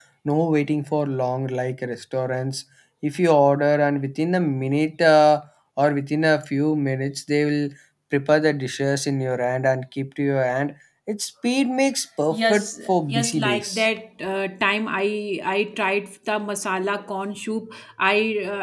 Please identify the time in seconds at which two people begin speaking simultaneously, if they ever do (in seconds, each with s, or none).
12.3 s